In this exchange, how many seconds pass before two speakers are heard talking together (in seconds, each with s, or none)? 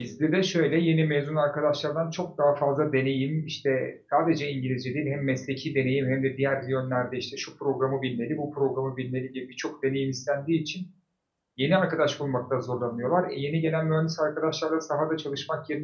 none